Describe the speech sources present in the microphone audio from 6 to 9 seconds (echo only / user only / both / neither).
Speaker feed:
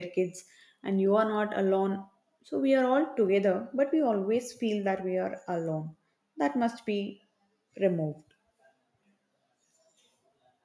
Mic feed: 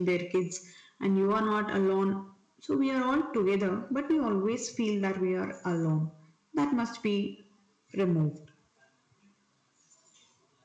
echo only